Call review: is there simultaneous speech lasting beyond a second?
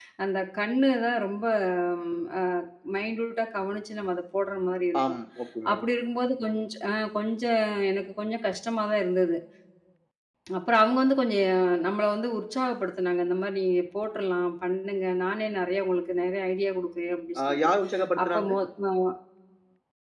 No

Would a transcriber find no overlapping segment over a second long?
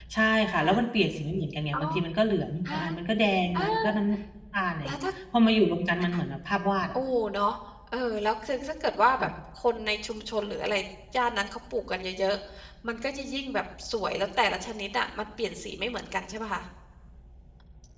Yes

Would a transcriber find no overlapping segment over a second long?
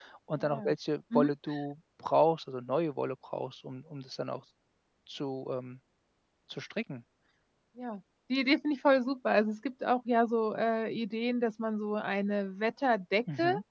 Yes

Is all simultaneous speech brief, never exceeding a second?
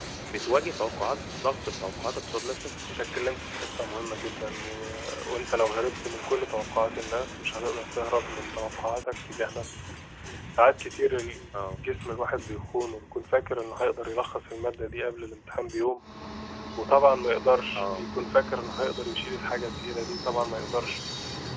Yes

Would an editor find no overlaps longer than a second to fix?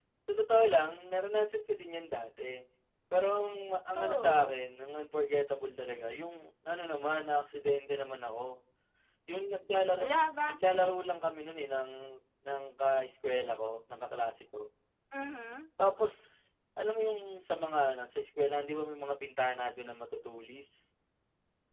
Yes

